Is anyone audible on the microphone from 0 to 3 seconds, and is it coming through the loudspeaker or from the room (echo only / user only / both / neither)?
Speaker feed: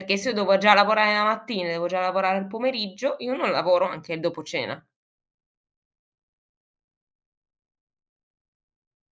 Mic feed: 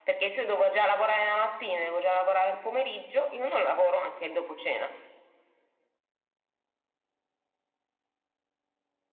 echo only